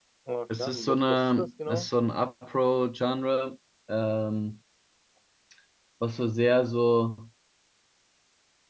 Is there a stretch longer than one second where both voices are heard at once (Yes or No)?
Yes